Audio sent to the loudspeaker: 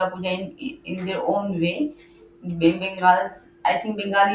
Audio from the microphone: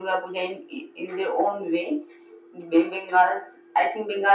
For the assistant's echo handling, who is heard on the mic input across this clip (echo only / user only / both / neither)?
echo only